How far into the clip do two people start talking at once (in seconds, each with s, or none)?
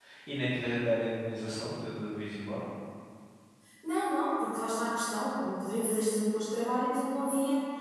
none